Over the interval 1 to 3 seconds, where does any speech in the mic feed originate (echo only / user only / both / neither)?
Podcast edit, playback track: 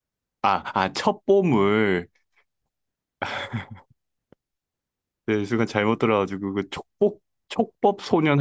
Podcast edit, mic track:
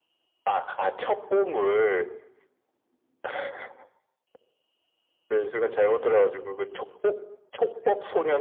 echo only